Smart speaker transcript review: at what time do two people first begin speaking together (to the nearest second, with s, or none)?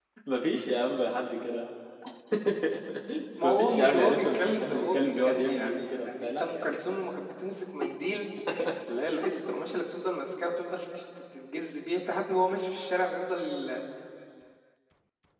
3 s